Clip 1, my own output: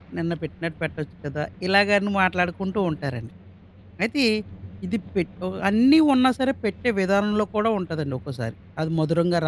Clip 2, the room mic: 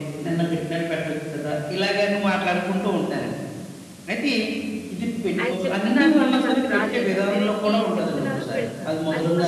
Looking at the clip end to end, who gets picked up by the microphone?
both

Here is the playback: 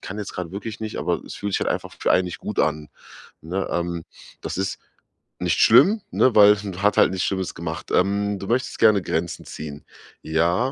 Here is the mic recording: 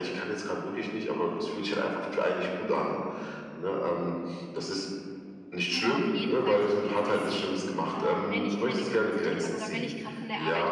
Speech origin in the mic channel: both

